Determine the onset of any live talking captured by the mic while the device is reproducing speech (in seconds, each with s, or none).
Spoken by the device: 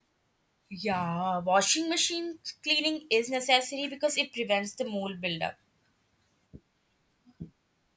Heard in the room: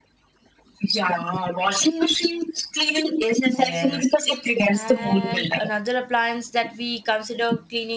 3.5 s